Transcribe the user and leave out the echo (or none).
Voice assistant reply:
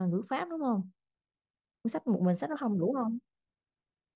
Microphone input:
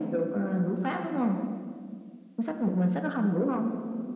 none